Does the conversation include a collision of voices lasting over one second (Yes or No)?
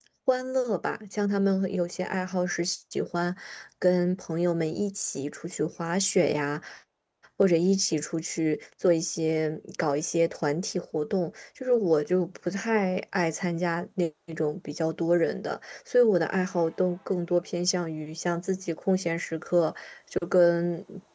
No